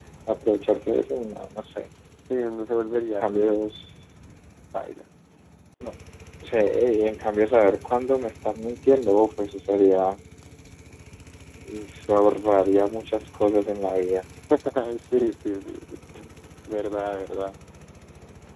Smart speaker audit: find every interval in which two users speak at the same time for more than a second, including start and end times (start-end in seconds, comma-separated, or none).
none